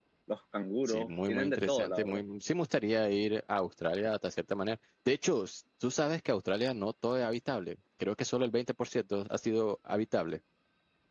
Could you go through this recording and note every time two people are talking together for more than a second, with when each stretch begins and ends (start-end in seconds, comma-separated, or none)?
0.9-2.2